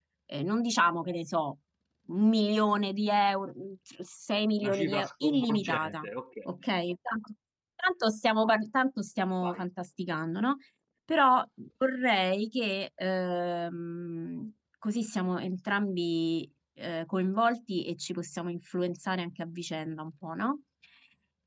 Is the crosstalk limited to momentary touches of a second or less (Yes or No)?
No